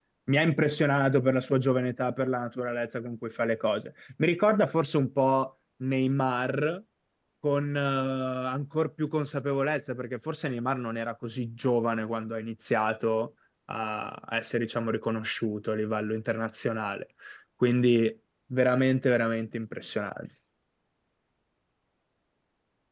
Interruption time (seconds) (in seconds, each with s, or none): none